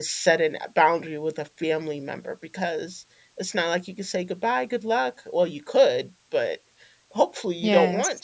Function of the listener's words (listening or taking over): listening